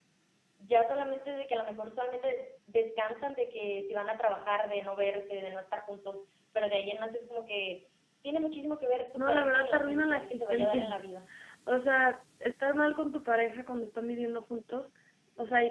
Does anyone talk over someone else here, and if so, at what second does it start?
9.2 s

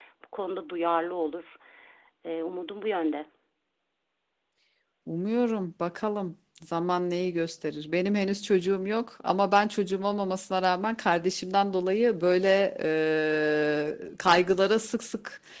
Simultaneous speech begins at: none

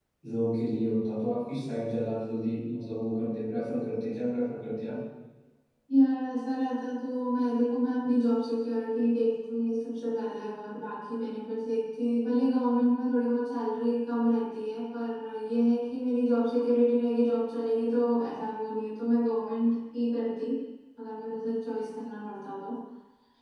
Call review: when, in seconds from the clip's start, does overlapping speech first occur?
none

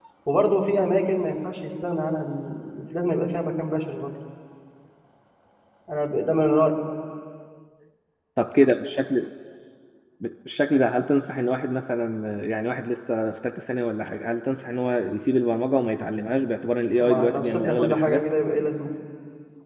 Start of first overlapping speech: 17.0 s

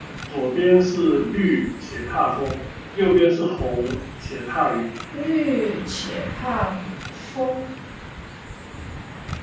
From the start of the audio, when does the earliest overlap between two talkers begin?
none

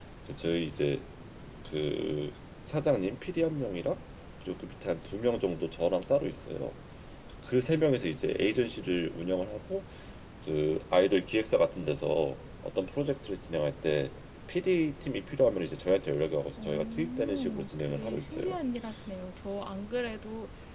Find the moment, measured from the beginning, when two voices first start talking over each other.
16.6 s

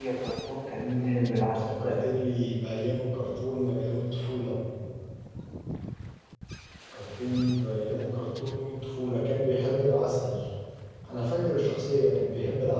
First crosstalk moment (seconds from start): 0.8 s

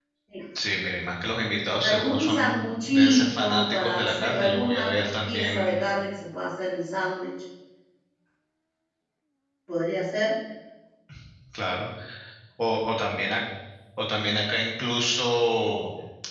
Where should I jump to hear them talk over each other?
1.8 s

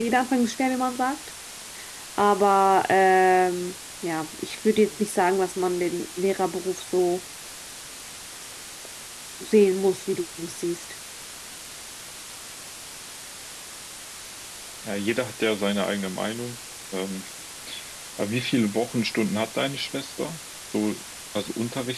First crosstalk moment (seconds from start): none

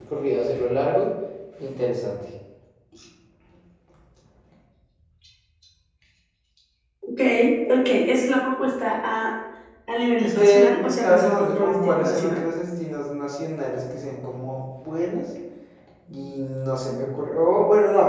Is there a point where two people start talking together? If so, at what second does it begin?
10.2 s

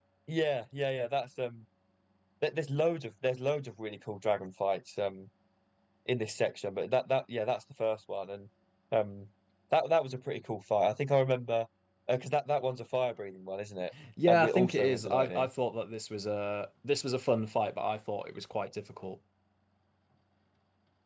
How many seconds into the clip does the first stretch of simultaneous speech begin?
14.3 s

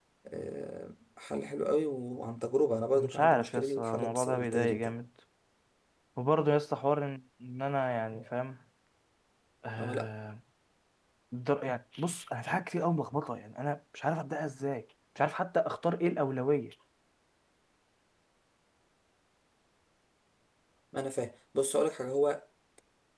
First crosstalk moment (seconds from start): 2.9 s

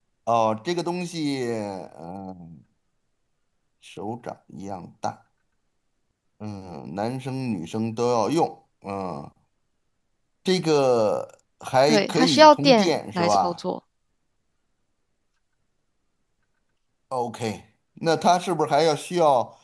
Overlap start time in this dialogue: 11.9 s

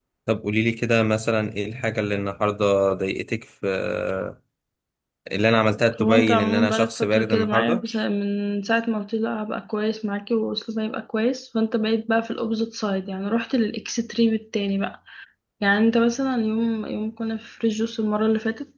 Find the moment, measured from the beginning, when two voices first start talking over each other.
6.0 s

